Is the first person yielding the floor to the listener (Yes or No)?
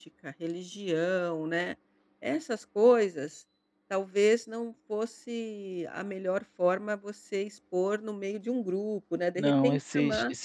Yes